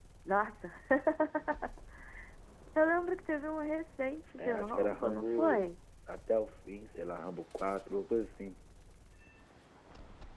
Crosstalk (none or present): present